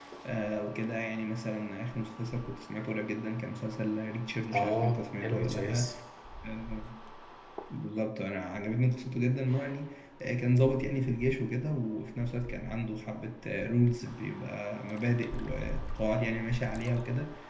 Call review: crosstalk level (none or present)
present